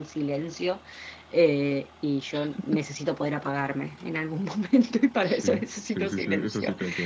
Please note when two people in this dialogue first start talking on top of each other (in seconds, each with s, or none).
5.2 s